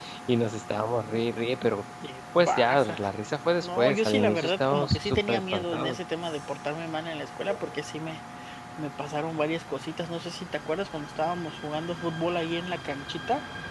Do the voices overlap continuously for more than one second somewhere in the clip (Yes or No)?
Yes